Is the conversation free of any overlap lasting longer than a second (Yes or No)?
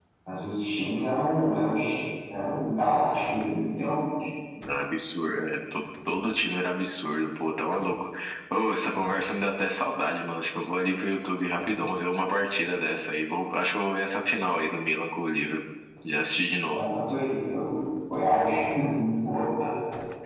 Yes